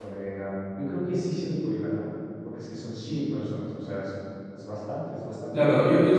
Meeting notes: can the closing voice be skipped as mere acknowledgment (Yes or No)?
No